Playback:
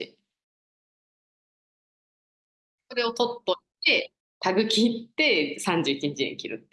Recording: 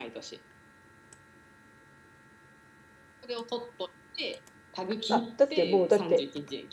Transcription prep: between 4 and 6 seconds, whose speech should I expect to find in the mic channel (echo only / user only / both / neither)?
both